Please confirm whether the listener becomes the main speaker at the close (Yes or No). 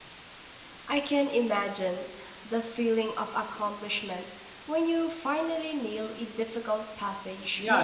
Yes